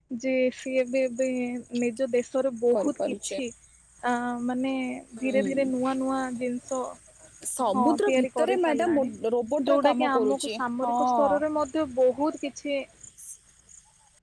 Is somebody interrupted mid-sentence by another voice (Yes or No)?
Yes